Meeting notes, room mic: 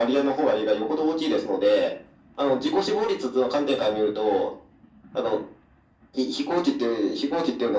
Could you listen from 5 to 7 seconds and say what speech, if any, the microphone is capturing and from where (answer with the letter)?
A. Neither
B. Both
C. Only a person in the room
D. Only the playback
D